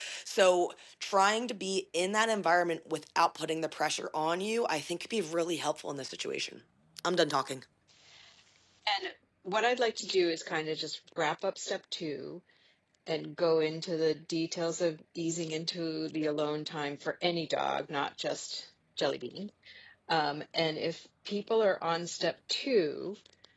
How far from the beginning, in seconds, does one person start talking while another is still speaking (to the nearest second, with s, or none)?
none